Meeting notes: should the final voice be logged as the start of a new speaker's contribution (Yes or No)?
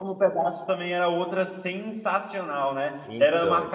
No